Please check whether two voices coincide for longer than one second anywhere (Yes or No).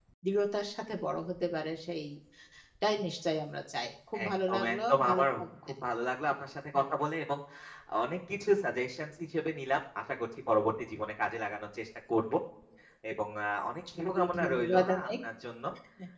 Yes